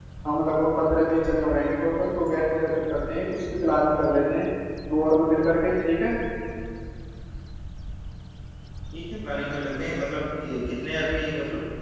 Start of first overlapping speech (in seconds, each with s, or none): none